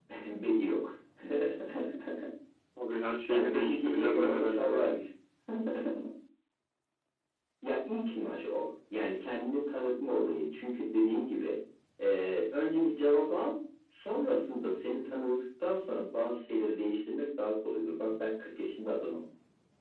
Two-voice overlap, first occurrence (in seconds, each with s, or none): 3.3 s